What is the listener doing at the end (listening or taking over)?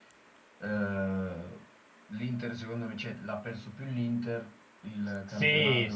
taking over